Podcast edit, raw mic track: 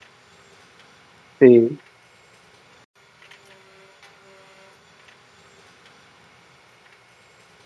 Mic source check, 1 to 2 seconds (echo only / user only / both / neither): user only